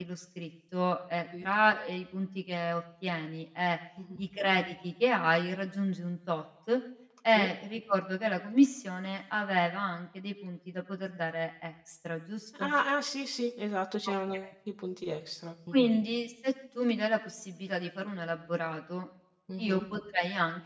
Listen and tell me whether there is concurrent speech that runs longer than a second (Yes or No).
No